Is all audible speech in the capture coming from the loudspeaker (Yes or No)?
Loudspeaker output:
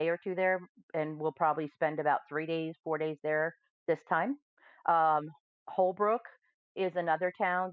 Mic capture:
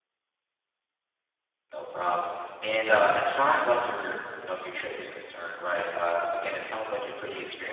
No